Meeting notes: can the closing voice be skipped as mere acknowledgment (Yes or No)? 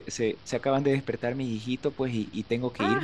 Yes